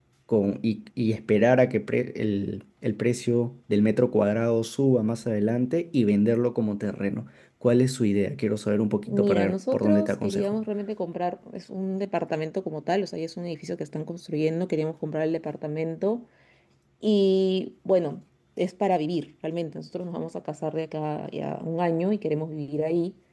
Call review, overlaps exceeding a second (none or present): present